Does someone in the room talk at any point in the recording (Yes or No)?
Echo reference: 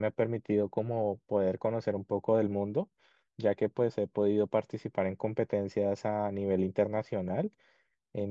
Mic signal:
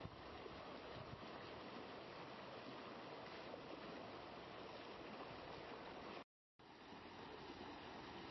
No